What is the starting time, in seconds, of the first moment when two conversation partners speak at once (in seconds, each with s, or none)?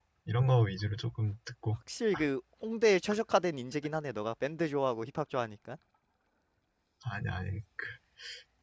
none